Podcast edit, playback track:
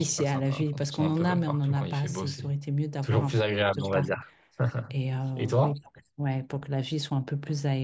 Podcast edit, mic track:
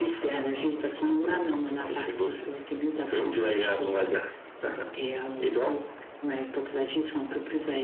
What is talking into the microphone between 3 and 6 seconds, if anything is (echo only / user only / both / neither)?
echo only